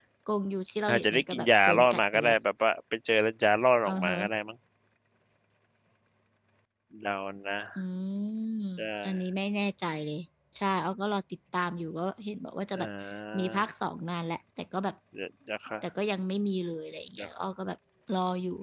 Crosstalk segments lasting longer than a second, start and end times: 0.9-2.3

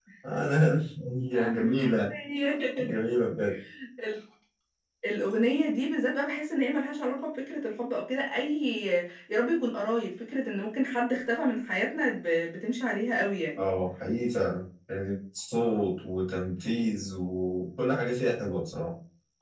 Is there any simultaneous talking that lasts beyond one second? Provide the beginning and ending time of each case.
none

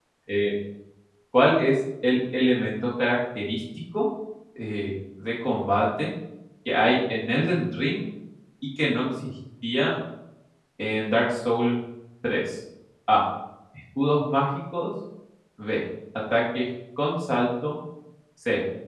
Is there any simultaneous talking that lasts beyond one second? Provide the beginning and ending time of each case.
none

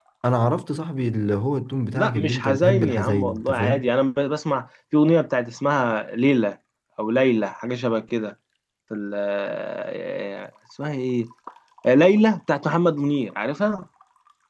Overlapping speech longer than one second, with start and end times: 1.9-3.9

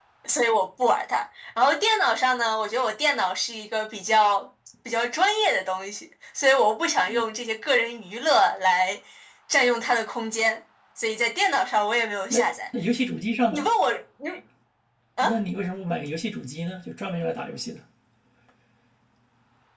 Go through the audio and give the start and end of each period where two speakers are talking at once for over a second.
none

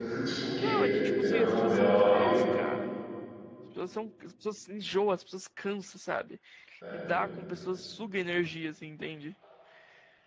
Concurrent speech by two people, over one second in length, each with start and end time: 0.6-2.3

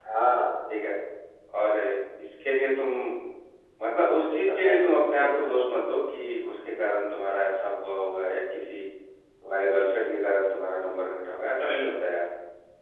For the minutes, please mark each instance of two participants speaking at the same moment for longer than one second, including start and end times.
4.3-5.5

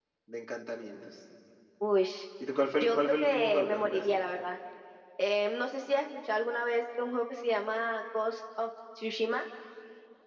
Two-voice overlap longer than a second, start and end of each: 2.8-4.1

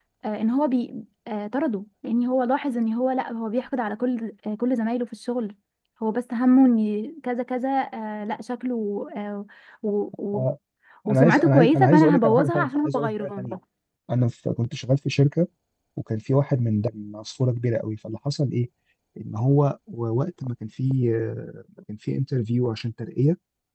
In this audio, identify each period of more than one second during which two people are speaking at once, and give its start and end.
11.1-13.5

